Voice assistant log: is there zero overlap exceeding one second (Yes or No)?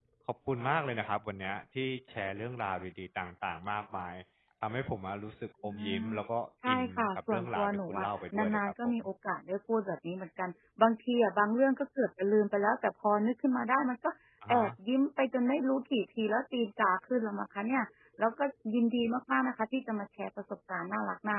No